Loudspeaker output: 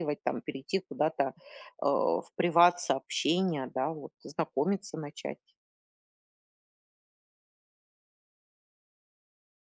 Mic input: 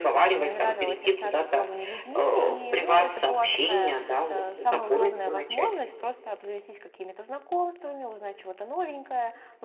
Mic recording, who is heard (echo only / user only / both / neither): both